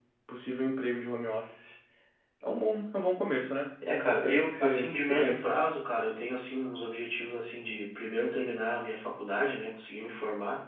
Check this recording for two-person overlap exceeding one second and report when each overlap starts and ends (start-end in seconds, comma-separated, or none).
3.9-5.5